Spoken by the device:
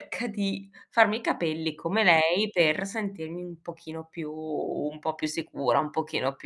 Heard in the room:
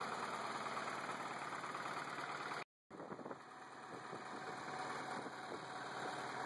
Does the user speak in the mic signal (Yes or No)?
No